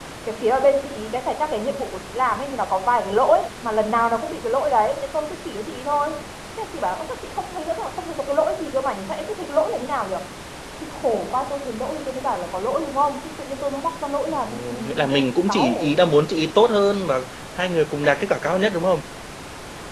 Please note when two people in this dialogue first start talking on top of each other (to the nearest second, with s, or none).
14 s